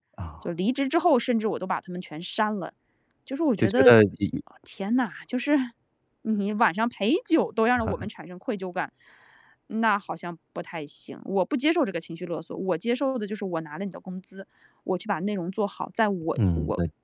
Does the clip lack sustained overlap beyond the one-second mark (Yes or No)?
Yes